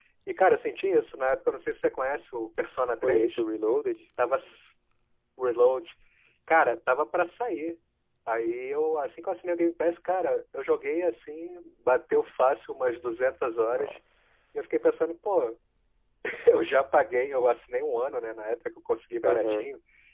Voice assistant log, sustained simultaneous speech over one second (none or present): none